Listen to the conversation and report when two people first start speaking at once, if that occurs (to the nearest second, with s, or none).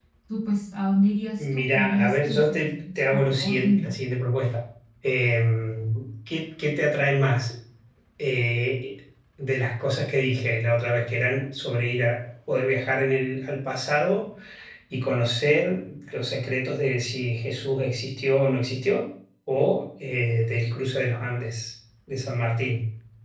1 s